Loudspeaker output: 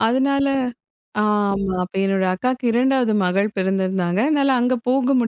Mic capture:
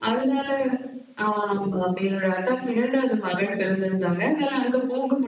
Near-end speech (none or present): none